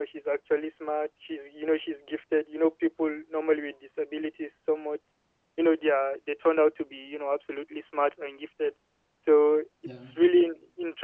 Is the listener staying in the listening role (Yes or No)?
Yes